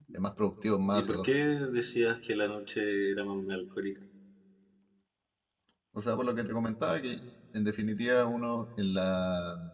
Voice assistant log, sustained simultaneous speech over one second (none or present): none